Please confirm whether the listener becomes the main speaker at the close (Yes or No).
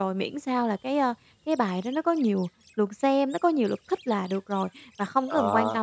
No